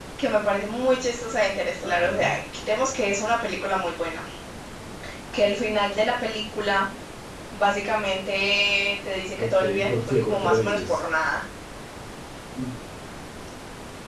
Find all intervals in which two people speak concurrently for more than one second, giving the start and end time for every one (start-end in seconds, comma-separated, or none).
9.4-11.0